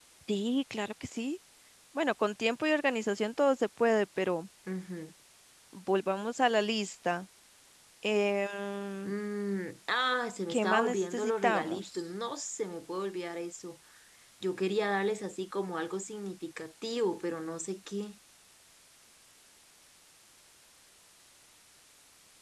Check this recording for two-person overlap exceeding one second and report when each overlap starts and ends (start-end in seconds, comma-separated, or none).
10.5-12.0